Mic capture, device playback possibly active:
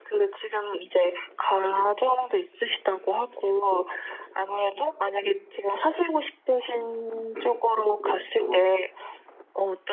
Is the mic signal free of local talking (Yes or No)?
No